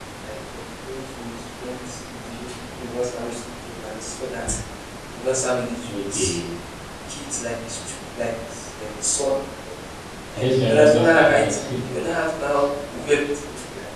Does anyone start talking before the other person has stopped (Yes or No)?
Yes